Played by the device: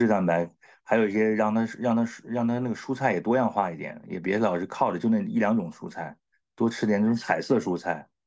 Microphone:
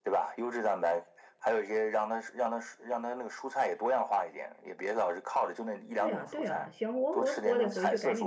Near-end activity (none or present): present